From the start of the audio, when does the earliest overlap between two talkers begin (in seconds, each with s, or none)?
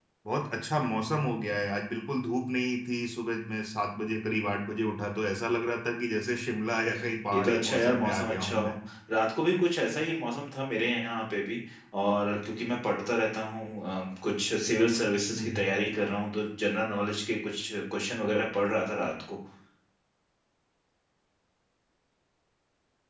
7.3 s